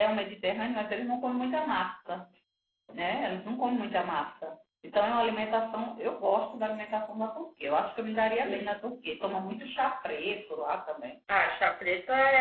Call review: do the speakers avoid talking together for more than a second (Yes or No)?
Yes